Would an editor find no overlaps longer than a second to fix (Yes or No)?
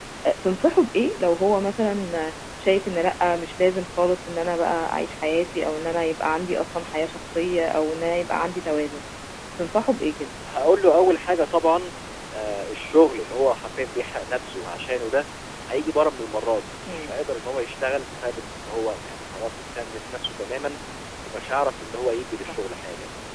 Yes